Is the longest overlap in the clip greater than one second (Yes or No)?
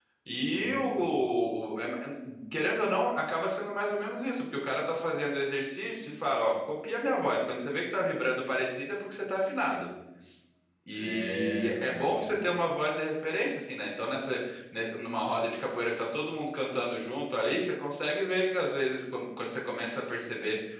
Yes